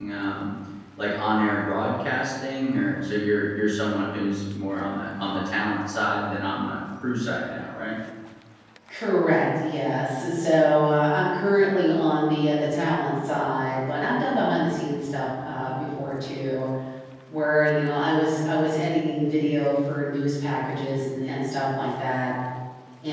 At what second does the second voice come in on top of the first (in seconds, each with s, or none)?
none